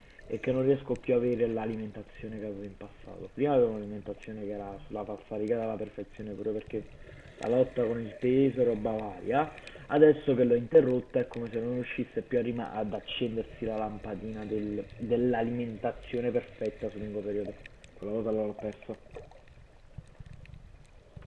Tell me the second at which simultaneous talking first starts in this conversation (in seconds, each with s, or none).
none